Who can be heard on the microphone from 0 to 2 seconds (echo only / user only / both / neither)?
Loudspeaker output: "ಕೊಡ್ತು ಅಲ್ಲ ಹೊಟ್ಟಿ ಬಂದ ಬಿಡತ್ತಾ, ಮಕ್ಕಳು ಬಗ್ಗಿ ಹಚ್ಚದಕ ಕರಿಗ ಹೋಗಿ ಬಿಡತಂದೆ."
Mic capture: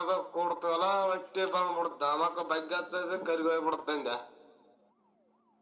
echo only